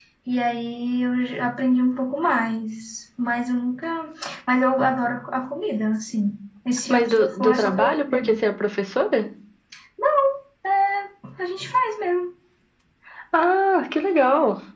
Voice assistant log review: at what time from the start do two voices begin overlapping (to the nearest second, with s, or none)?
7 s